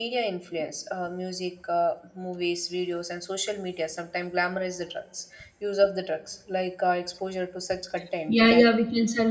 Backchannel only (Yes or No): No